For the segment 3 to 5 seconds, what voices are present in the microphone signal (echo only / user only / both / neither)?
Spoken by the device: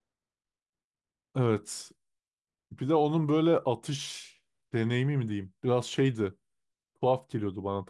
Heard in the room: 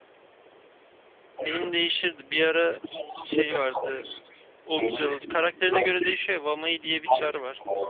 both